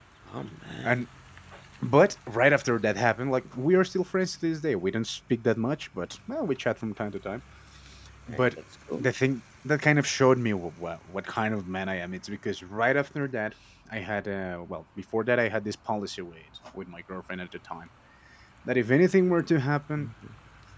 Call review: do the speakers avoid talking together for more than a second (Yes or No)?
Yes